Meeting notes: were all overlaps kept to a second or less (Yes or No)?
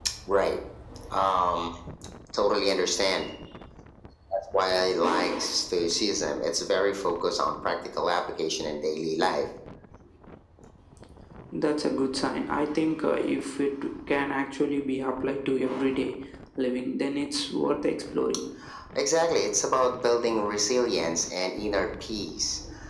Yes